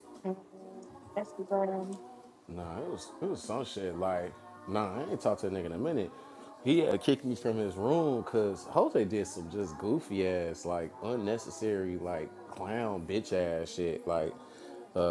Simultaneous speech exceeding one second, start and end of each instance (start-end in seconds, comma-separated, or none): none